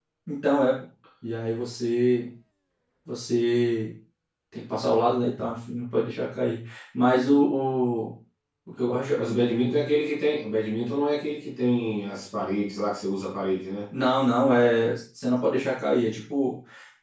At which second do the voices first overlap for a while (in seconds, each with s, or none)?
none